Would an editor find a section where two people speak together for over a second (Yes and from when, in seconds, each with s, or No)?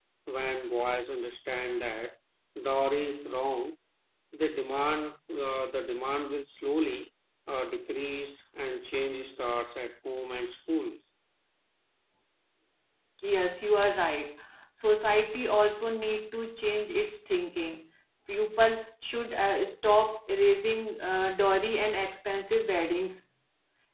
No